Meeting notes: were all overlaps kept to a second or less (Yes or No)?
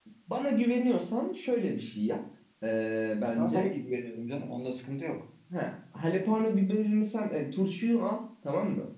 Yes